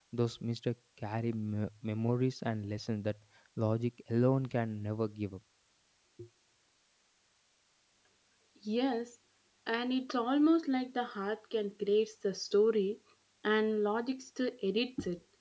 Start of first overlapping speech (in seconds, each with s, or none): none